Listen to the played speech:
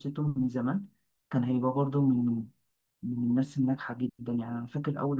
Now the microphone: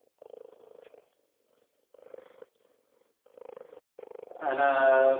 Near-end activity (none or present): present